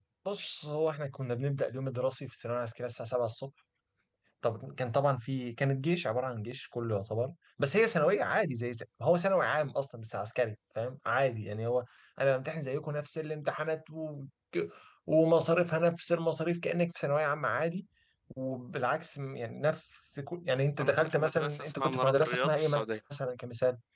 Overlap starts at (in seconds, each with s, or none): 20.8 s